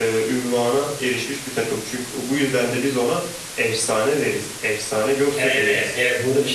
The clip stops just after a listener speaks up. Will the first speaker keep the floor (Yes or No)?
No